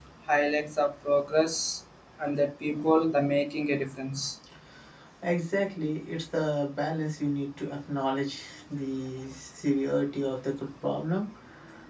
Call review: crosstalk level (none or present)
none